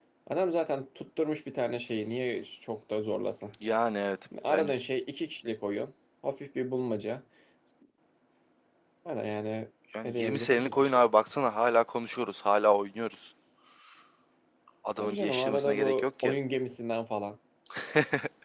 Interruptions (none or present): present